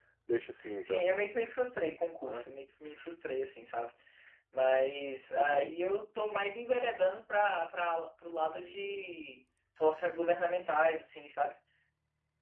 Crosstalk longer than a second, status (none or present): none